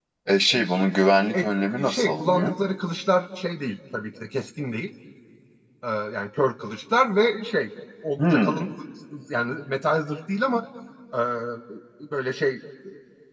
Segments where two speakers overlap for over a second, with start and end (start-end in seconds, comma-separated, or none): 1.3-2.5